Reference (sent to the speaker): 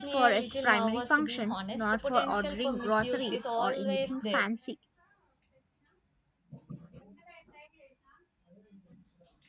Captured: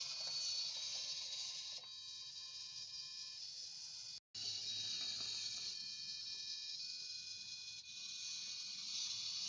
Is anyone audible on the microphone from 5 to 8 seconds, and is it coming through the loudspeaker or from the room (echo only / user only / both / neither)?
neither